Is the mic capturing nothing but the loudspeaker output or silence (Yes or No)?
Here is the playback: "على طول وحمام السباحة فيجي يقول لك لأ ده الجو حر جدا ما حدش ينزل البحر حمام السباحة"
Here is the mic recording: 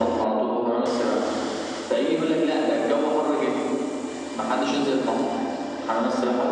Yes